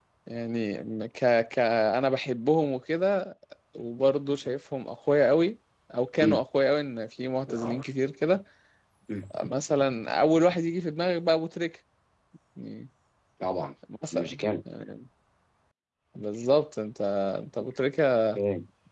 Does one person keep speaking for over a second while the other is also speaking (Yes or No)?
No